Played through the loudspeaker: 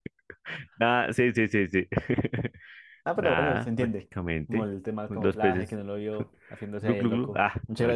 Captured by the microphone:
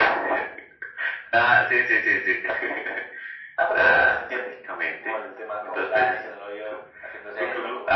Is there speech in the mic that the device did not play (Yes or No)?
No